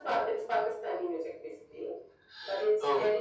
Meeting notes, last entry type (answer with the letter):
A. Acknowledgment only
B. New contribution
A